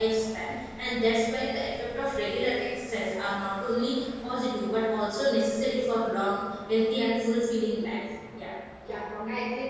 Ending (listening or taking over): taking over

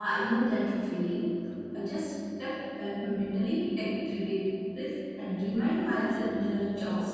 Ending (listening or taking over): taking over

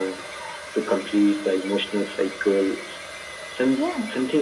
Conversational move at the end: listening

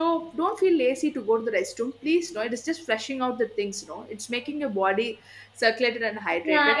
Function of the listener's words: taking over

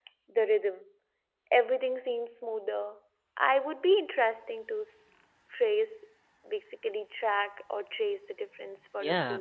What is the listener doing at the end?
taking over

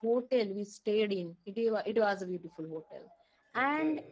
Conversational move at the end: listening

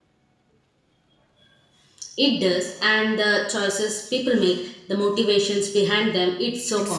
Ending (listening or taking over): taking over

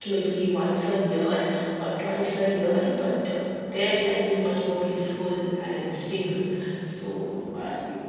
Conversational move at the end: taking over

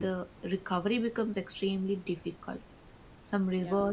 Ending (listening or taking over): listening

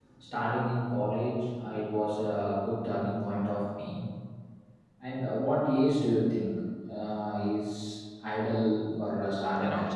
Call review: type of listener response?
taking over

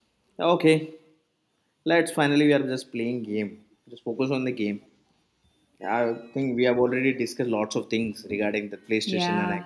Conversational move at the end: taking over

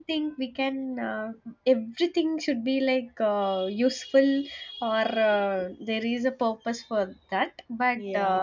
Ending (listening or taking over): listening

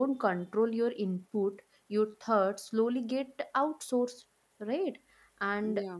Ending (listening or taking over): listening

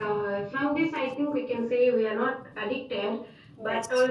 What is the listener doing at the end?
listening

